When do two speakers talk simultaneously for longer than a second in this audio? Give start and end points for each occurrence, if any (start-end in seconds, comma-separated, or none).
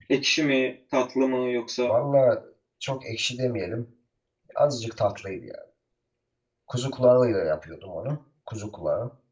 none